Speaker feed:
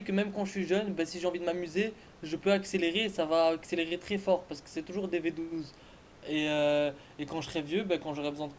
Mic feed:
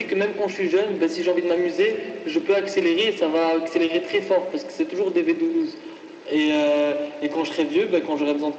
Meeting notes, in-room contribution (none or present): none